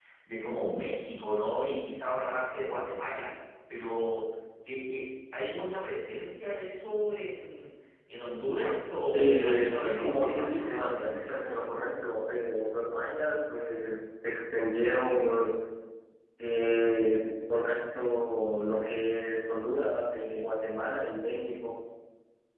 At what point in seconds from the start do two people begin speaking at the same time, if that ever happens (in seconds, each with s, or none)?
9.1 s